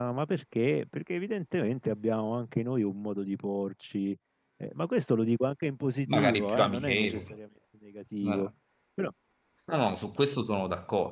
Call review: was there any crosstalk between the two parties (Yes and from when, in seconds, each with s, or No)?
Yes, from 6.1 s